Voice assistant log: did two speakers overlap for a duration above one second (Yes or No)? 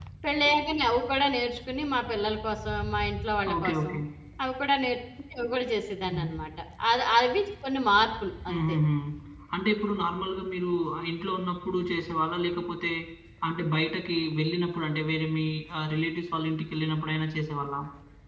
No